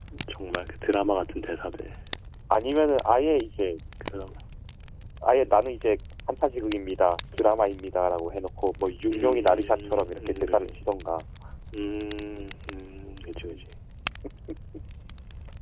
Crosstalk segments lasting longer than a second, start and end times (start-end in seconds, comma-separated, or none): 9.1-10.8